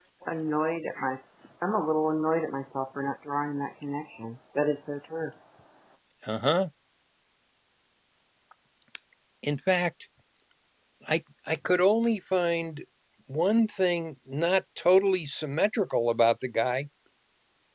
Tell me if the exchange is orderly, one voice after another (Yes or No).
Yes